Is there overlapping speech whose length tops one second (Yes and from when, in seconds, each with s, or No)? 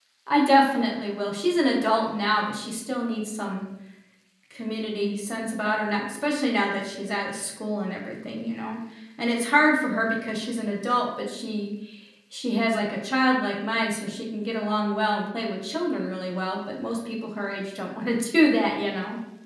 No